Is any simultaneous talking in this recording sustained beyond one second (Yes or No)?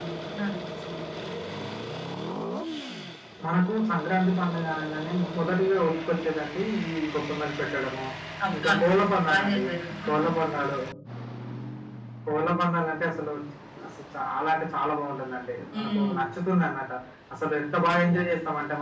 No